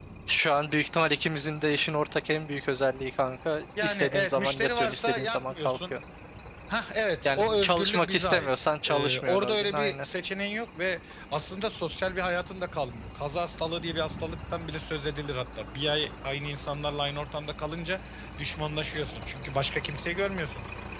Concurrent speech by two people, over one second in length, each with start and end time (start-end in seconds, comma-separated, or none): 3.8-5.9, 7.2-10.1